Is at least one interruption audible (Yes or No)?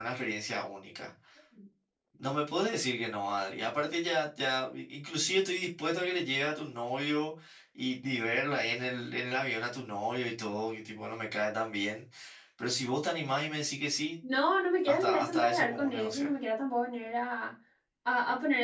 Yes